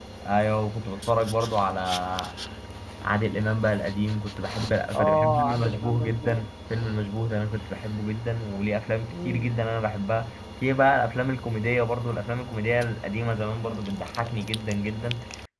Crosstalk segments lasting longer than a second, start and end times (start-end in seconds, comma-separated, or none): 4.9-6.5